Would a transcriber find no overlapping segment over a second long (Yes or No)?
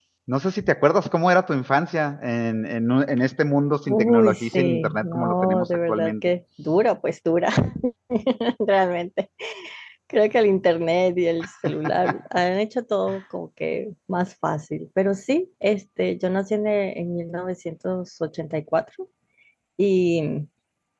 No